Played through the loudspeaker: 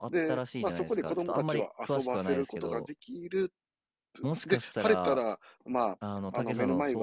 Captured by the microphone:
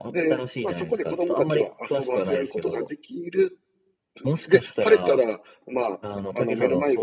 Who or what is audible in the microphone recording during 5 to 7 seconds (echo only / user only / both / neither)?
echo only